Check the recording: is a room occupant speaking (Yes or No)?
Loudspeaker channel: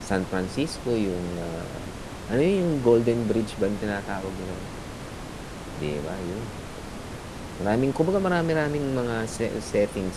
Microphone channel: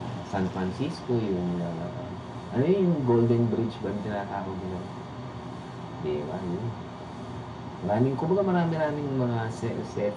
No